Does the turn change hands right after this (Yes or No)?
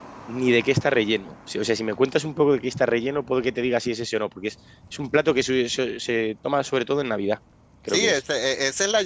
Yes